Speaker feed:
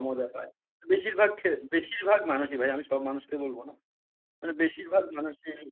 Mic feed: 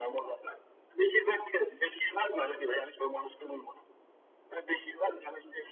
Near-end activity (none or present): none